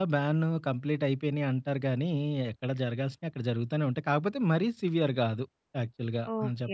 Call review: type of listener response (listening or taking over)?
taking over